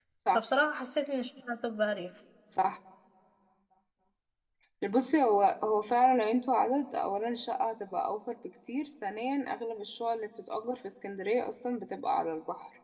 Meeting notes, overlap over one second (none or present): none